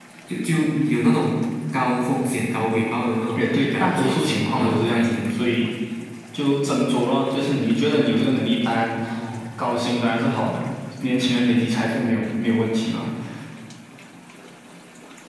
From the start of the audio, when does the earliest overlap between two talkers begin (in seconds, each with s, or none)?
3.4 s